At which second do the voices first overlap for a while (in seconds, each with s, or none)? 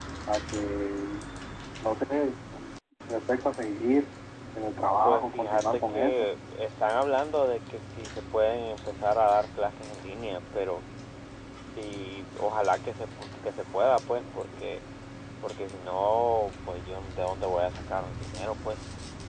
5.0 s